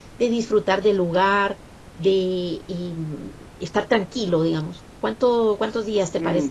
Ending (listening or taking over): taking over